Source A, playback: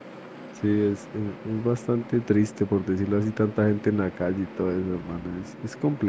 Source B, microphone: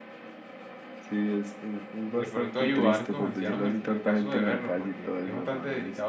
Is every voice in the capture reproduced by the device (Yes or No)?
No